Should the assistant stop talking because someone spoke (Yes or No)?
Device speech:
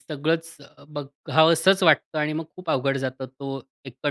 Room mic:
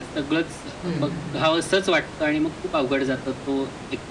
Yes